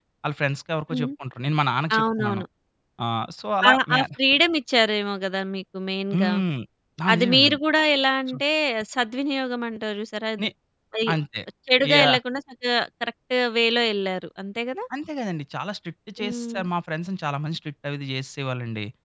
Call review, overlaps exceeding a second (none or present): none